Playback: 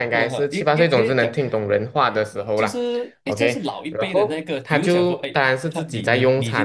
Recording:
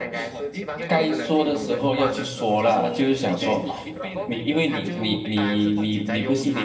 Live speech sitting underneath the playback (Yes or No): No